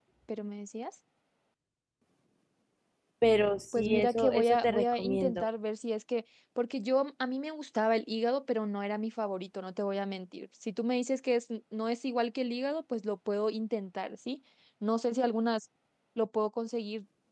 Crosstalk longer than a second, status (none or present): present